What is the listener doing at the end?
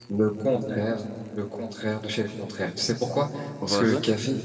listening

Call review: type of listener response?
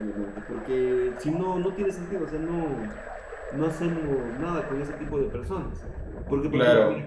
listening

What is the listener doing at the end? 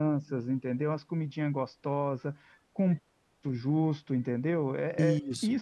listening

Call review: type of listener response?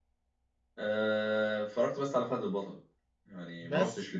listening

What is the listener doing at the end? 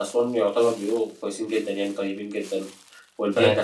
listening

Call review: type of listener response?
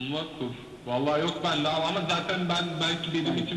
listening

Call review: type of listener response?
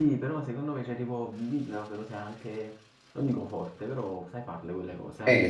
taking over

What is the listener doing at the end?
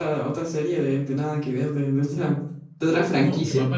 taking over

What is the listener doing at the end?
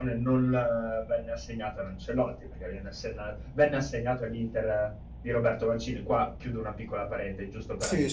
taking over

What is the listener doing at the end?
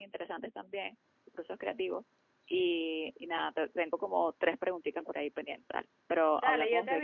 taking over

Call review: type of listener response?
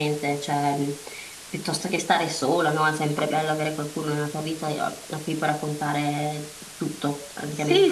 taking over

